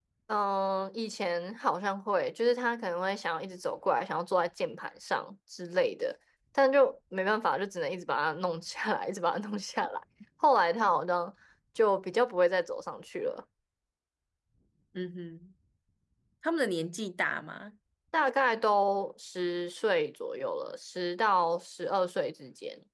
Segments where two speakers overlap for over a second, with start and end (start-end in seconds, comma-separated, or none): none